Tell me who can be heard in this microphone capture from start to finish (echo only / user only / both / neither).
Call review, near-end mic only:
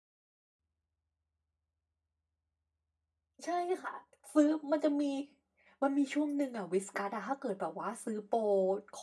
user only